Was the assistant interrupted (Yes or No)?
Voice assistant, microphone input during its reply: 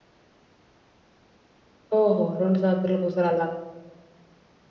Yes